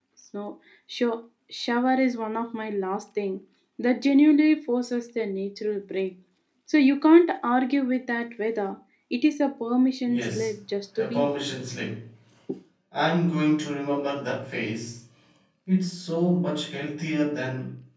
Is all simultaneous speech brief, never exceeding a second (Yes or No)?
Yes